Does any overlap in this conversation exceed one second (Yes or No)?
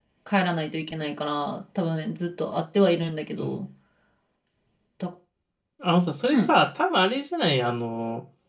No